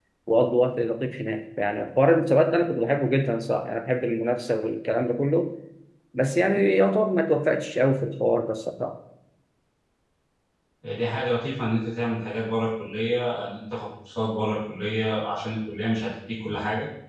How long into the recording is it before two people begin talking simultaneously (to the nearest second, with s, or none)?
none